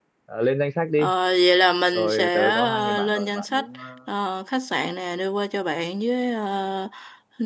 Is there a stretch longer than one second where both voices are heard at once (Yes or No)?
Yes